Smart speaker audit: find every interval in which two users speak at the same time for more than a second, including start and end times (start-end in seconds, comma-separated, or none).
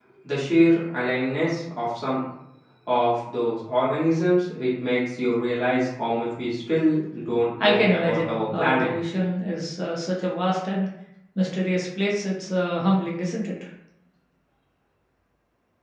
7.6-8.9